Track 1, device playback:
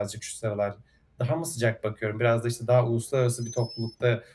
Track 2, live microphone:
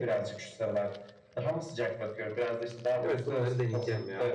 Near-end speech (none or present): present